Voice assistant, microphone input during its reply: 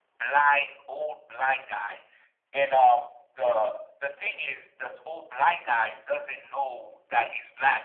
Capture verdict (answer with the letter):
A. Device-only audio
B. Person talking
A